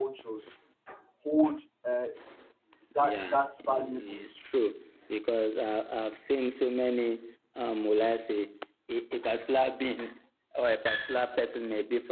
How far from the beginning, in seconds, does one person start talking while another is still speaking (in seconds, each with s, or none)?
3.0 s